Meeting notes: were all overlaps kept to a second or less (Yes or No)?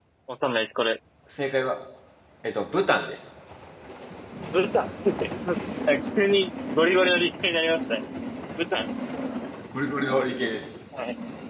Yes